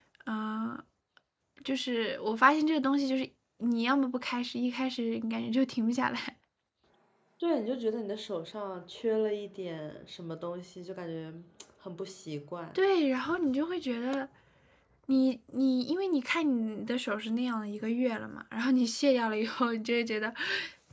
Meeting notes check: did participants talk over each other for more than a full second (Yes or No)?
No